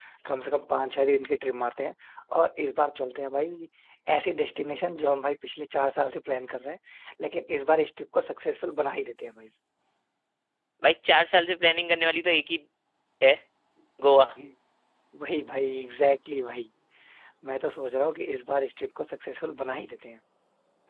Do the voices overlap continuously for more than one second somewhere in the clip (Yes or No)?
No